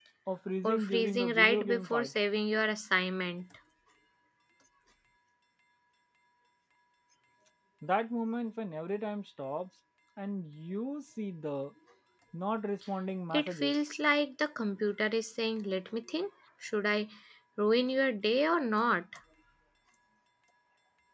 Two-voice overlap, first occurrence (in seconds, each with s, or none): 0.6 s